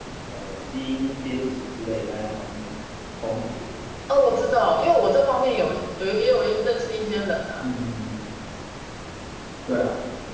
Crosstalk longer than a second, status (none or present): none